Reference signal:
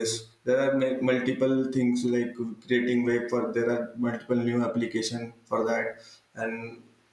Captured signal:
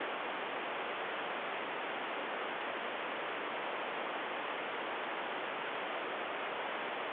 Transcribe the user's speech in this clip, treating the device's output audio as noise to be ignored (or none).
none